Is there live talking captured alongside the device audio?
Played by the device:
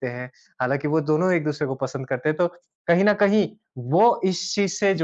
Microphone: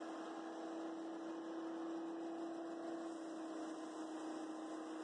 No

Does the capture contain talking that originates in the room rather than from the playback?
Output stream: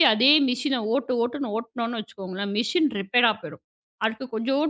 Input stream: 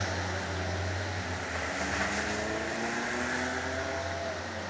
No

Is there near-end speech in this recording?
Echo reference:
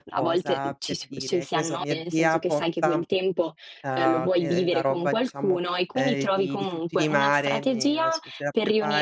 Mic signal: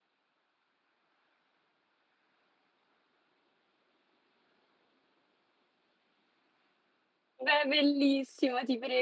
Yes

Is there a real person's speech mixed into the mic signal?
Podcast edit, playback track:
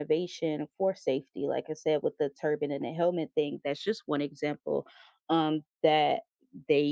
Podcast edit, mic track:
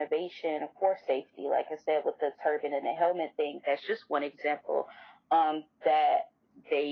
No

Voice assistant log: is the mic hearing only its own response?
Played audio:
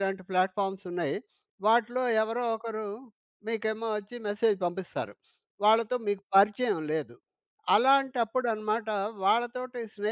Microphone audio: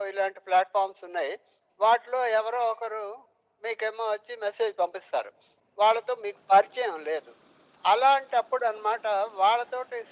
Yes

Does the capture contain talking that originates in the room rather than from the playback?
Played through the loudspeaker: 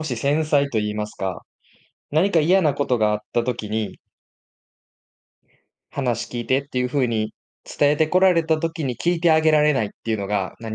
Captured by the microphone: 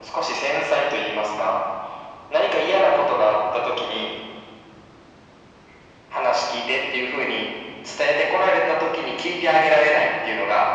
No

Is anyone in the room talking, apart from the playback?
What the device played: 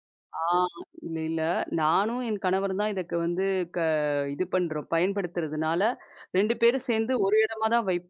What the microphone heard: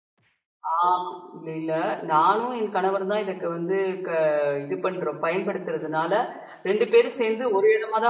No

